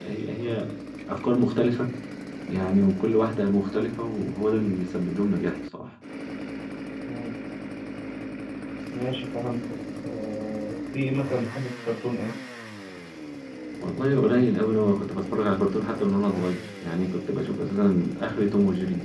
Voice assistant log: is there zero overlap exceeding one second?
Yes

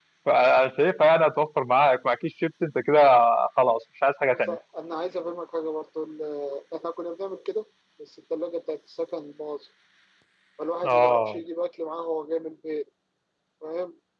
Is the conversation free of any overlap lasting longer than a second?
Yes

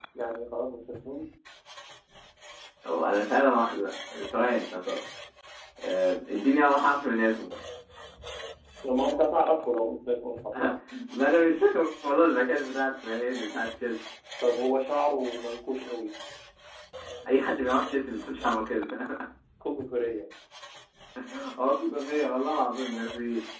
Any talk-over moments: No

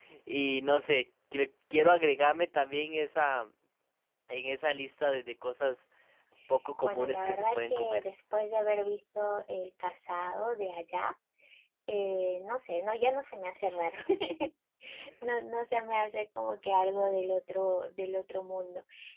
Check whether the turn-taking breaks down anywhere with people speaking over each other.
Yes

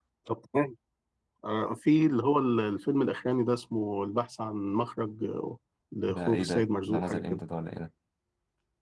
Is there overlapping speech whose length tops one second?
Yes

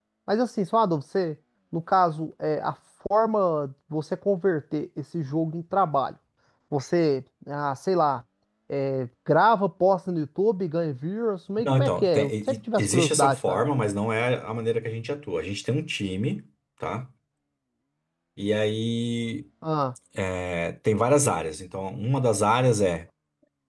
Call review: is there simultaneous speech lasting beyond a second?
Yes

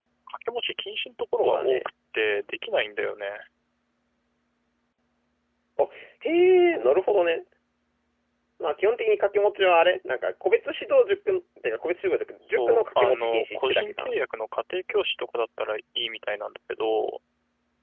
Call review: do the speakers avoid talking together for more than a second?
No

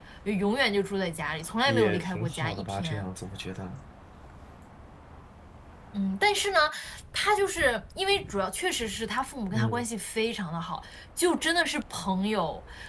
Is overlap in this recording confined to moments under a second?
No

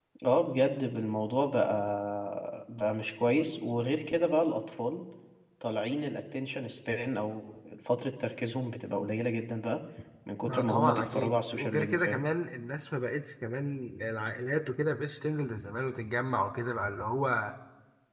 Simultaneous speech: Yes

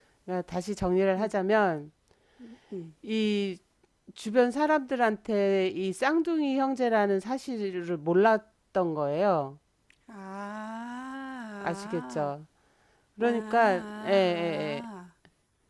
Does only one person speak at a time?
No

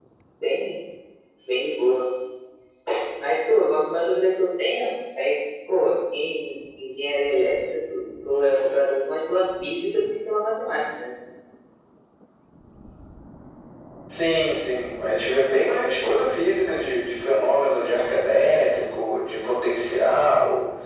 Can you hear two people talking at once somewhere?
No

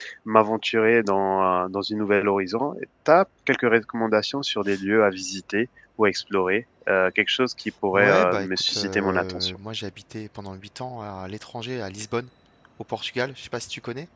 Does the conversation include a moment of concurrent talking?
Yes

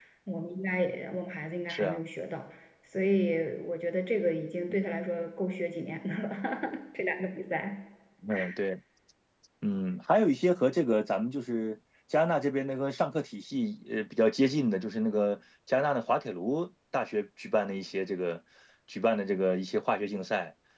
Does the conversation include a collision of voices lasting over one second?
No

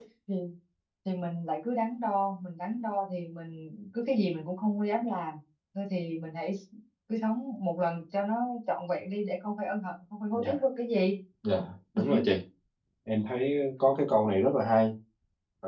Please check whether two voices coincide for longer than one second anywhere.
No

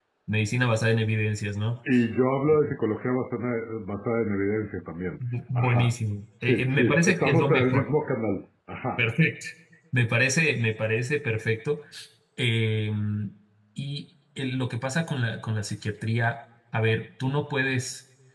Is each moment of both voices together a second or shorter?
No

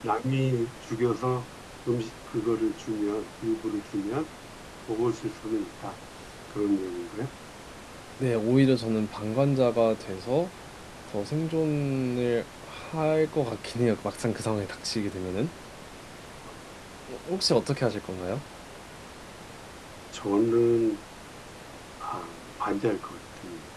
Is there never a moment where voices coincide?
Yes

